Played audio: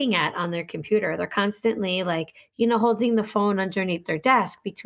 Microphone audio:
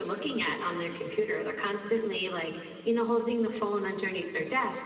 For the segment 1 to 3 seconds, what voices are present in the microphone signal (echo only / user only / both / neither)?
echo only